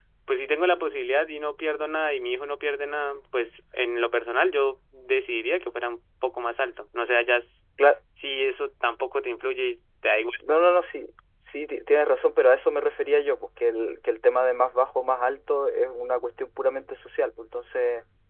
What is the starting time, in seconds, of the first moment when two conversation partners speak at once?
none

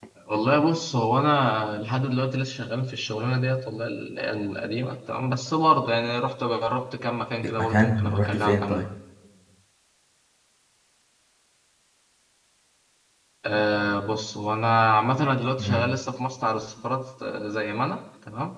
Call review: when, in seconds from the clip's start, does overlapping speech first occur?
7.6 s

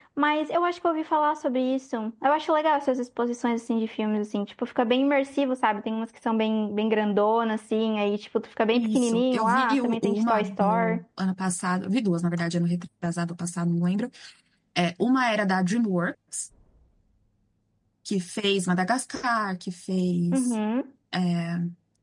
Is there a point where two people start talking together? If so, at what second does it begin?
8.7 s

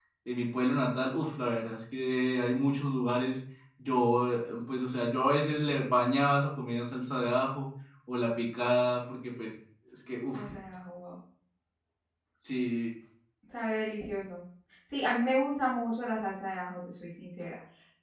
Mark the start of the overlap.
none

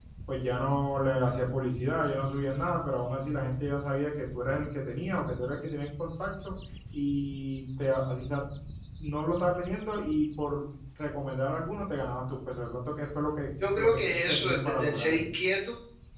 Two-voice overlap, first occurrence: 13.6 s

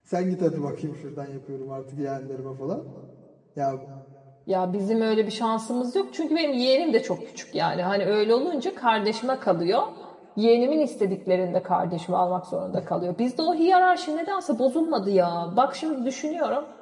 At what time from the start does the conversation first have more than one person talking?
none

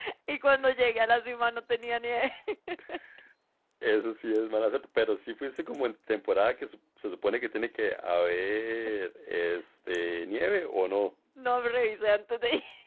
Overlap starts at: none

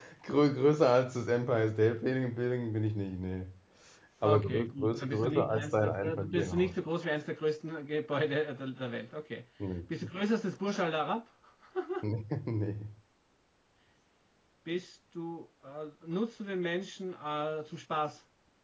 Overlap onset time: 4.2 s

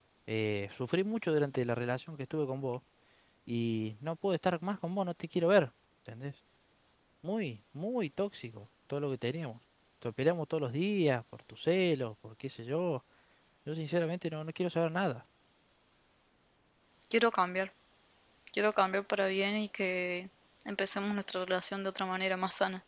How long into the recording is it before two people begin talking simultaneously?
none

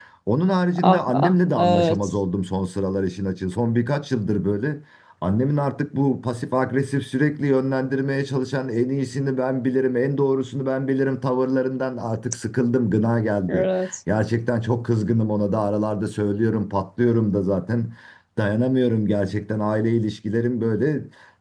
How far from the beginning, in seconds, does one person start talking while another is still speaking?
0.8 s

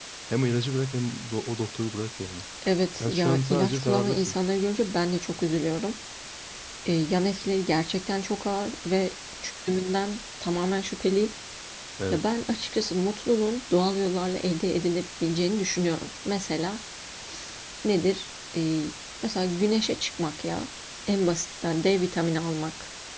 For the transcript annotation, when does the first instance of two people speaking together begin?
2.9 s

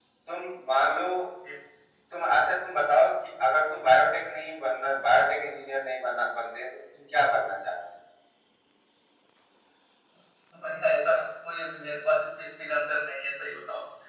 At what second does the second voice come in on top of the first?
none

